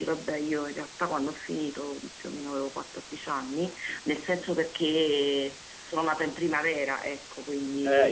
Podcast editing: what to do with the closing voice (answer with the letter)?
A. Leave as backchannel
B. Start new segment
B